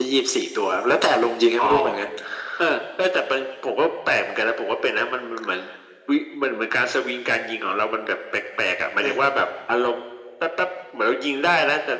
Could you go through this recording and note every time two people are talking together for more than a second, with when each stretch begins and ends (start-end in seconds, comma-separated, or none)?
none